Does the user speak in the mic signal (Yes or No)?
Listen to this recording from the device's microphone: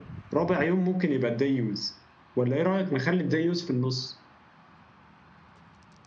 No